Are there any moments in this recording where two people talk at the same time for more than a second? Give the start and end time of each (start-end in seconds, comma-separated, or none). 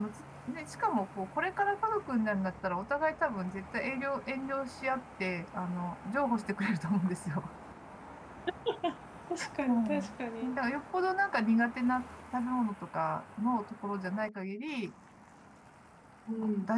none